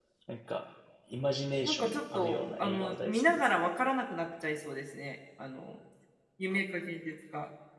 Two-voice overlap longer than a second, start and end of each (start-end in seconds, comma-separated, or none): 1.6-3.7